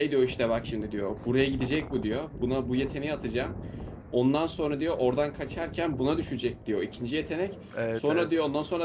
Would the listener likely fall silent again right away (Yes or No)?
Yes